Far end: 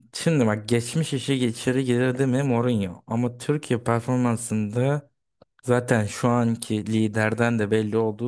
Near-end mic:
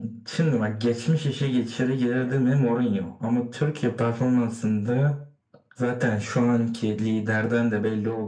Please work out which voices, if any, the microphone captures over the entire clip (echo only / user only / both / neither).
echo only